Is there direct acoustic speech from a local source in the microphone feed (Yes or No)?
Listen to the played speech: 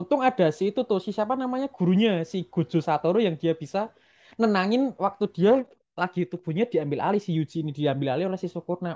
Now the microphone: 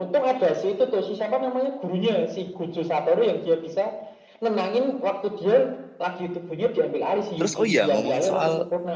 Yes